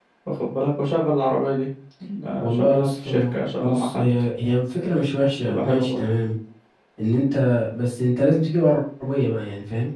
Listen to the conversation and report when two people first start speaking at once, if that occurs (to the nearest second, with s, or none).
2 s